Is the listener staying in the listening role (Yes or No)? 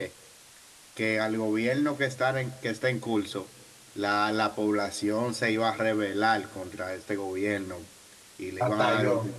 Yes